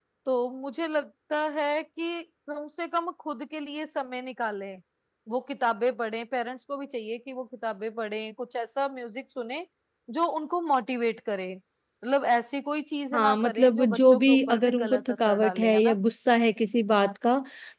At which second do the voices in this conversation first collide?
13.1 s

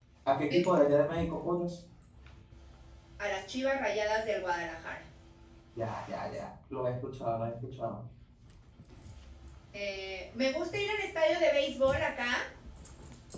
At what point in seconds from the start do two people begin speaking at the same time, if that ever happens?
none

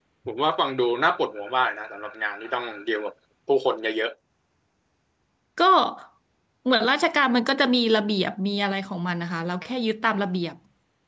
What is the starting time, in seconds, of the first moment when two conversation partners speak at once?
none

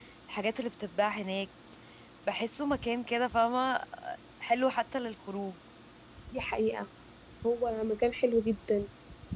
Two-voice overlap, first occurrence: none

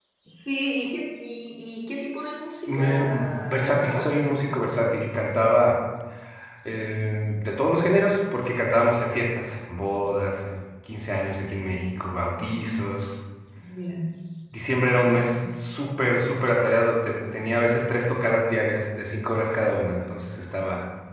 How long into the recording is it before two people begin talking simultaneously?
2.7 s

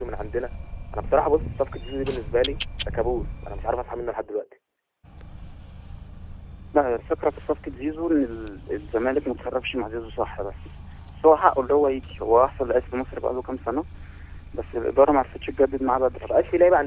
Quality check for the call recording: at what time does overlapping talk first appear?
none

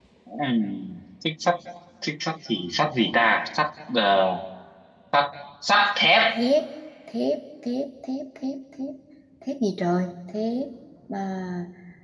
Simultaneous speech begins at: none

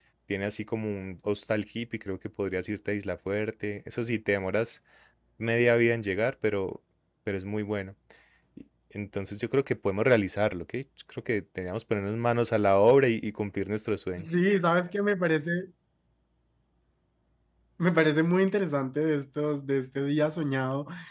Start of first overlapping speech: none

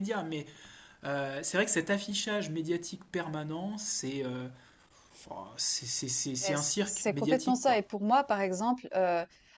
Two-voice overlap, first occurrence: 6.4 s

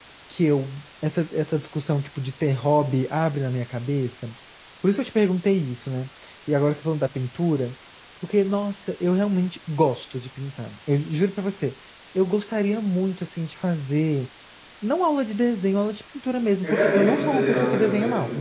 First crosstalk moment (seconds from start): 16.6 s

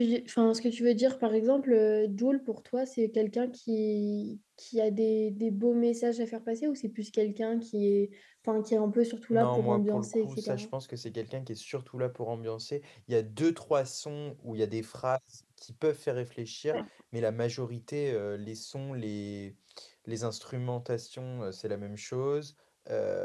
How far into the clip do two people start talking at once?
9.3 s

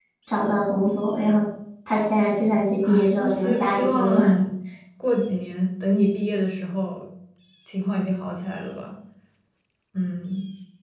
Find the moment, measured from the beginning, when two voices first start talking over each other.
2.8 s

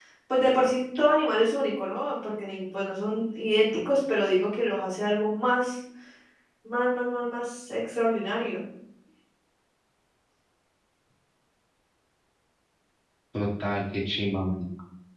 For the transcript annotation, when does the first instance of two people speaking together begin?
none

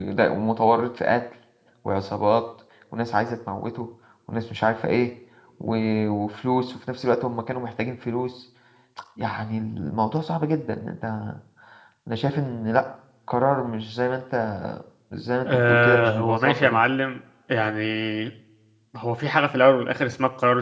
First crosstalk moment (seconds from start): 15.5 s

